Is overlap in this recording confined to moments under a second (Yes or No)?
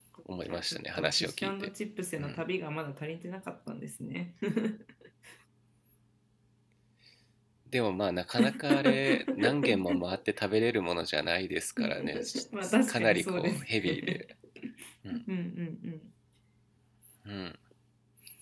No